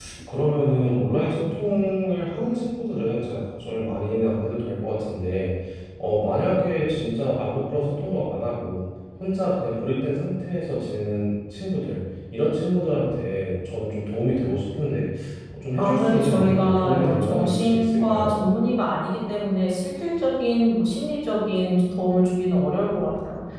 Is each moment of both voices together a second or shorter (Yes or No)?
No